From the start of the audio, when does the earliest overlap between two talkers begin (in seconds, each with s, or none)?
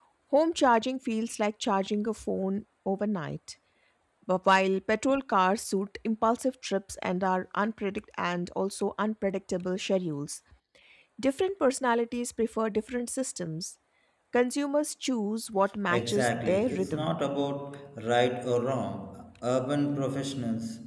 15.9 s